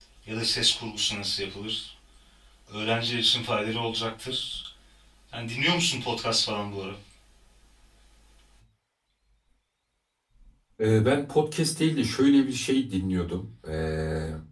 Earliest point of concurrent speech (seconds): none

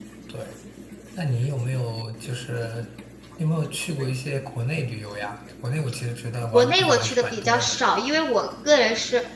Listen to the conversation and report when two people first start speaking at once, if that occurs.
7 s

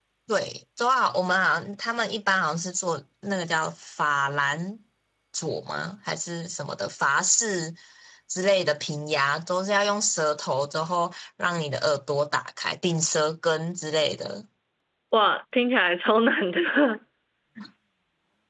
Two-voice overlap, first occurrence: none

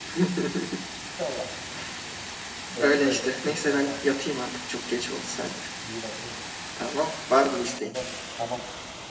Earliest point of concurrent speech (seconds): 3 s

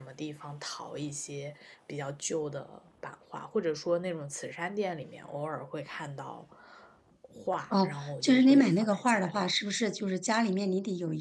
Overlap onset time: 8 s

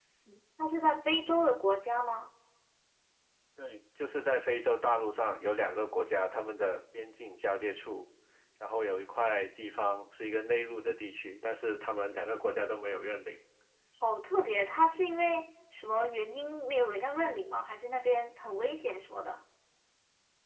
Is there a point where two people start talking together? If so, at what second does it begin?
none

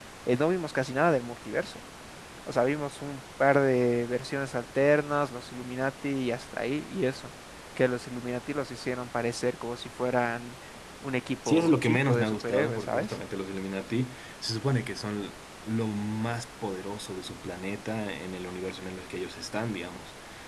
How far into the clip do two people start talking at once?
11 s

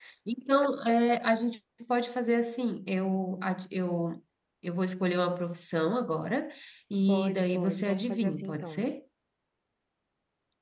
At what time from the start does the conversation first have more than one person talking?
7 s

